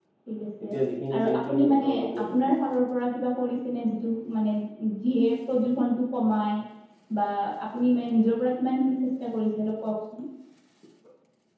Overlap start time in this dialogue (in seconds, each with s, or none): 1.2 s